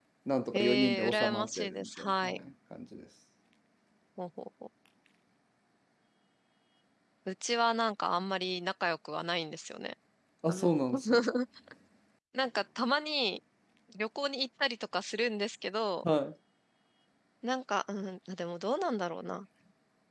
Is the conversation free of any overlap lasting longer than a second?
No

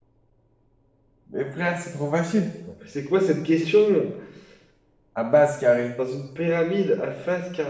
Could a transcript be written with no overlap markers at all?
Yes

